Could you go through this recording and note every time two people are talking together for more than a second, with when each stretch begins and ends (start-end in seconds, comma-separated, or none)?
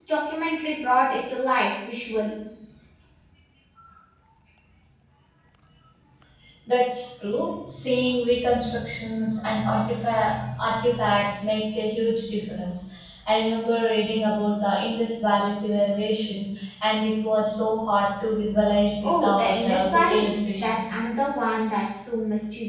19.0-21.0